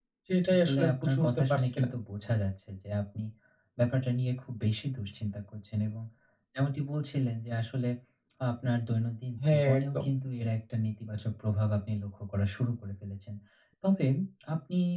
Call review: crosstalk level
present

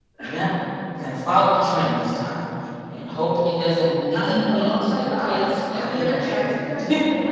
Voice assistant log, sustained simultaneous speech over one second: present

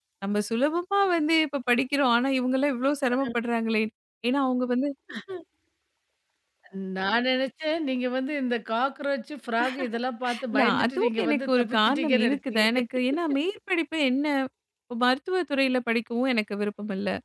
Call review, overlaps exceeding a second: present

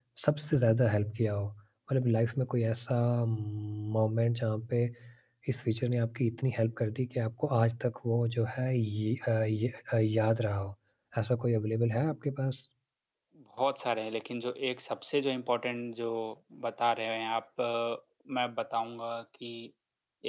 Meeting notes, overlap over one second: none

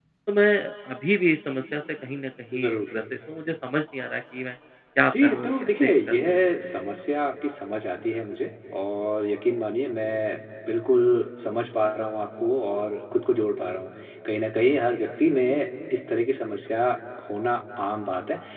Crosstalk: present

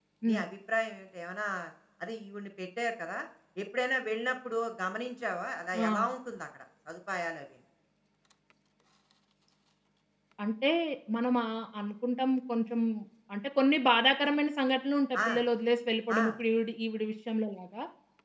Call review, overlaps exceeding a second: none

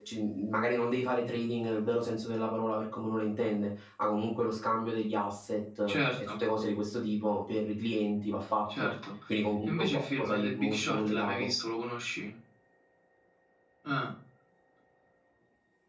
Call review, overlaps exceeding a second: present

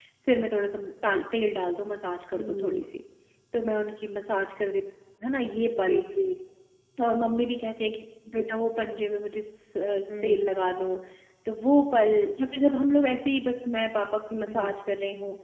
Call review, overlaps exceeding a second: none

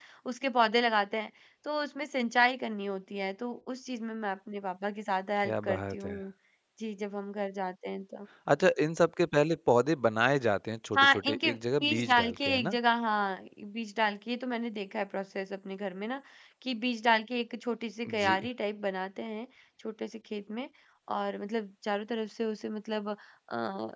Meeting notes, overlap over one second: present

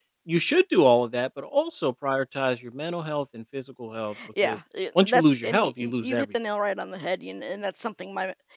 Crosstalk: present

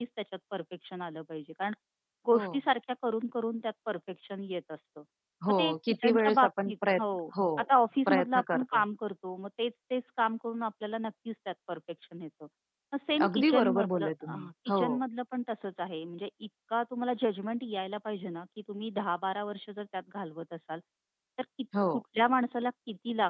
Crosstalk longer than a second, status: present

